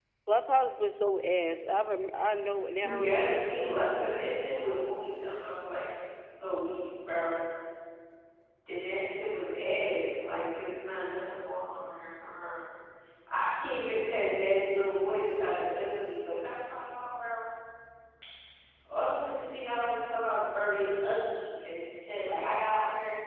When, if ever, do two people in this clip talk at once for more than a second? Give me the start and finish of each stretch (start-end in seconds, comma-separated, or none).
2.8-4.4